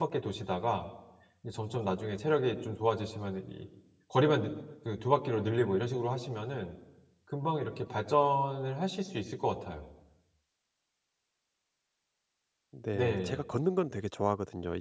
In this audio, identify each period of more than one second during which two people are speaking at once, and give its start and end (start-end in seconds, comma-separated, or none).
none